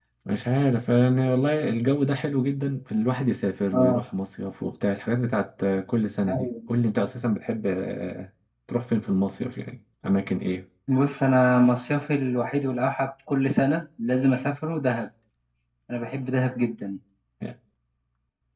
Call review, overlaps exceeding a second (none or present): none